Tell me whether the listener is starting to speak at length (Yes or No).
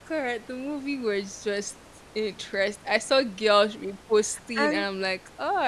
No